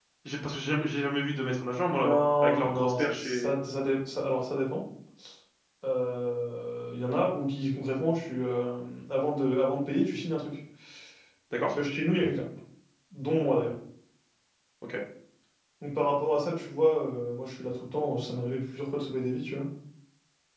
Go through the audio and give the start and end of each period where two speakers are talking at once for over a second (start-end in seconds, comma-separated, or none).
1.9-3.5